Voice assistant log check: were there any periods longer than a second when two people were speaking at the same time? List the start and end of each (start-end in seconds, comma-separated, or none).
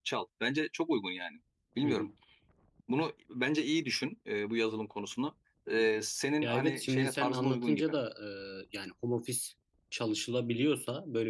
6.4-7.9